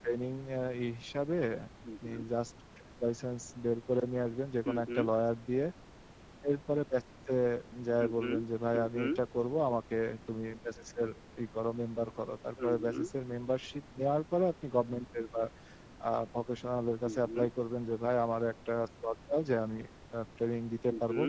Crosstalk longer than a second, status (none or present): none